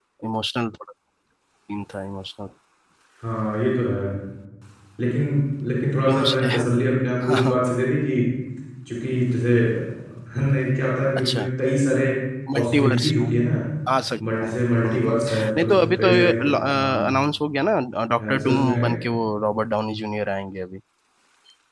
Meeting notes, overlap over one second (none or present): present